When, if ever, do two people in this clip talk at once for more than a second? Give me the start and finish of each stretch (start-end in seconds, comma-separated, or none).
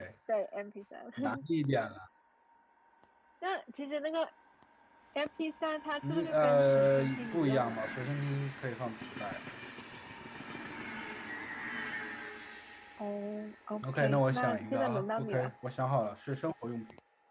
6.1-7.8, 13.9-15.5